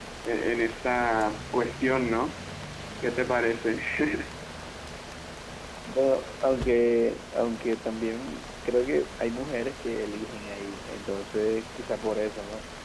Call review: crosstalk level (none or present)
none